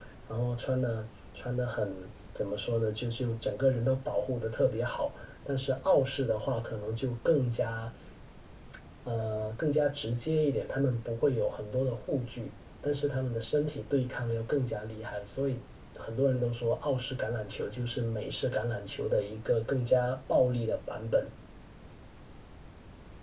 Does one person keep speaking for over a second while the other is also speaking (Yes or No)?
No